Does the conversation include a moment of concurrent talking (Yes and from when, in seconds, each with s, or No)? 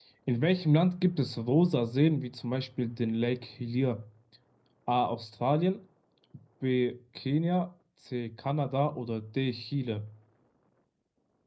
No